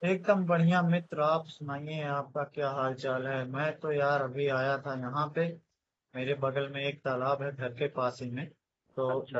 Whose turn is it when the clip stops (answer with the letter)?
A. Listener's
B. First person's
B